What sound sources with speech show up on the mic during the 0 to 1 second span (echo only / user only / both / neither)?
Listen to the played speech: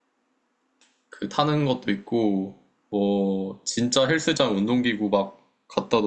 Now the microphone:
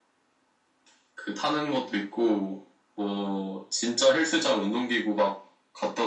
neither